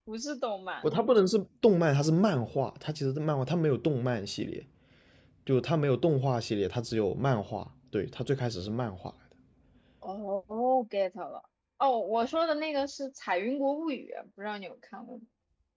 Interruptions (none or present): none